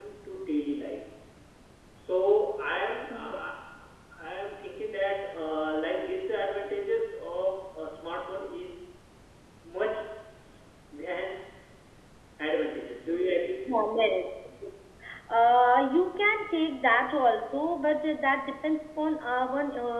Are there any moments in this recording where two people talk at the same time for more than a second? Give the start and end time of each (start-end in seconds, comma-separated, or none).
none